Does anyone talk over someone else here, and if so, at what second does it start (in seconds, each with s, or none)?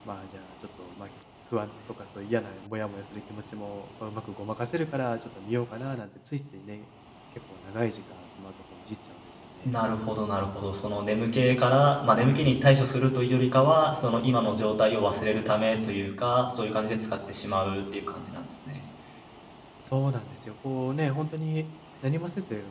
none